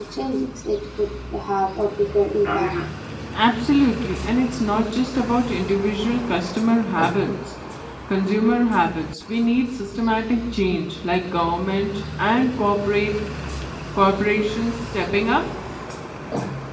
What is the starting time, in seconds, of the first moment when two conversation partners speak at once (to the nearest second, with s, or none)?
none